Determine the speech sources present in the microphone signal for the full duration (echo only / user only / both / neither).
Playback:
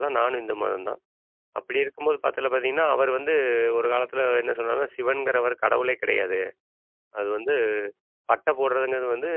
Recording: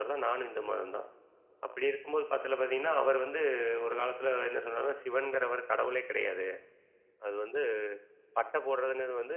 echo only